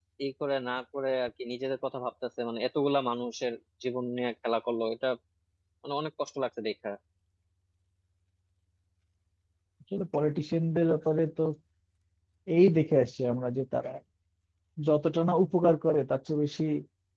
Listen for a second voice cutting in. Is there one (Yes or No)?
No